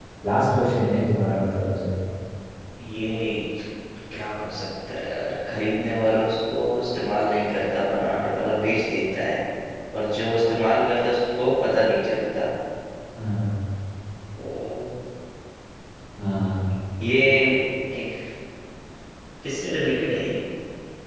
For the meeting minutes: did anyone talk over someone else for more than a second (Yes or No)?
No